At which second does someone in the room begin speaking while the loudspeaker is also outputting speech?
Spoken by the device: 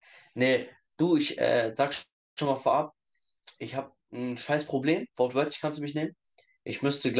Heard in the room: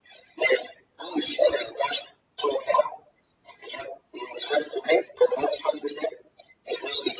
none

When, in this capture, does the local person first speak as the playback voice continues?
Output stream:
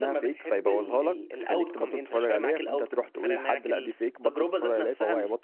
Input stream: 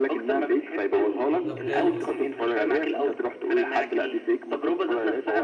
1.4 s

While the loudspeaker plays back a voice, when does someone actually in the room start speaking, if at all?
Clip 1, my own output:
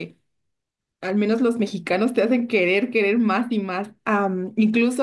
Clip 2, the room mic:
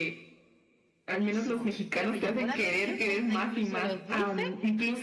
1.1 s

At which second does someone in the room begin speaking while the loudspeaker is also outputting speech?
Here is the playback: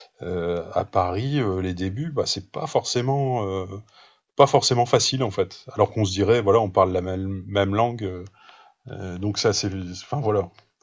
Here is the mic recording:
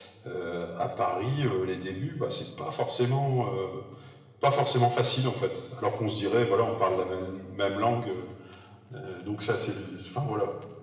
none

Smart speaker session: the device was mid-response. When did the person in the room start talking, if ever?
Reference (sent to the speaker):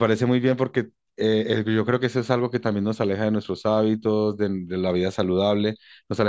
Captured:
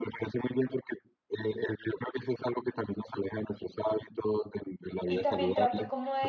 5.0 s

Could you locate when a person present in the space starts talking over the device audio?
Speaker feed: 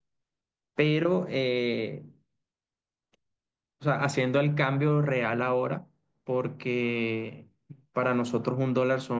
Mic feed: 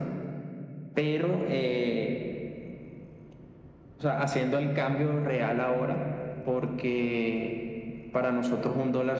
none

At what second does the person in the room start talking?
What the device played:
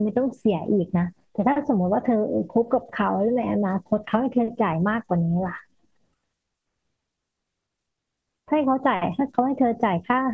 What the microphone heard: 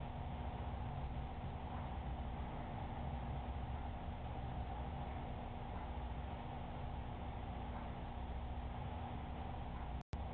none

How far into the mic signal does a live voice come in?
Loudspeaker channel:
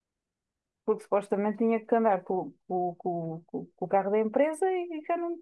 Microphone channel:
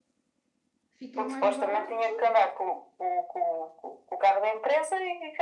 0.9 s

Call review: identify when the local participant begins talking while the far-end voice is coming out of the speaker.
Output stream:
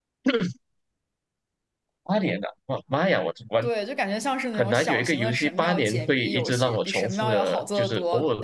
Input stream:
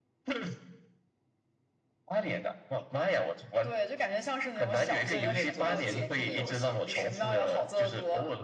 4.7 s

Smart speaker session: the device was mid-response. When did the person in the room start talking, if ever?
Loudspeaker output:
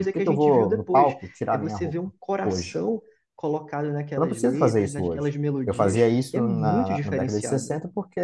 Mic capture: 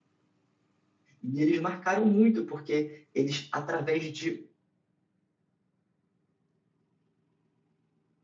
1.2 s

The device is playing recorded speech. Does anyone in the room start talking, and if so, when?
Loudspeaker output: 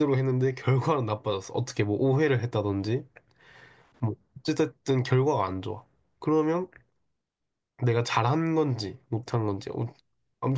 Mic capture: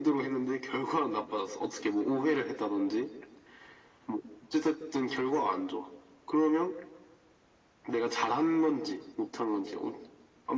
none

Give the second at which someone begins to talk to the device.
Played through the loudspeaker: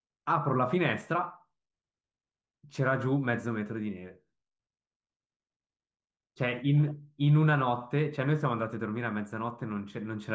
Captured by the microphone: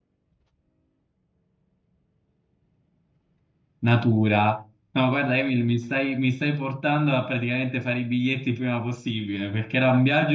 3.8 s

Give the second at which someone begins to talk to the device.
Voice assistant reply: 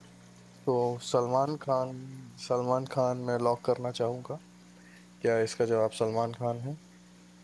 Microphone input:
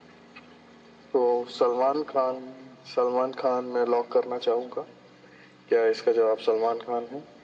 none

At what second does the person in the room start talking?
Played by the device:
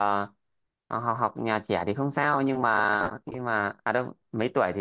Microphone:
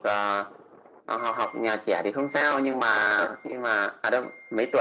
none

